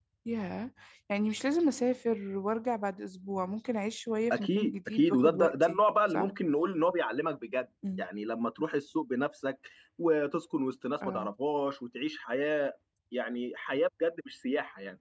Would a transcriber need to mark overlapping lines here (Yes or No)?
Yes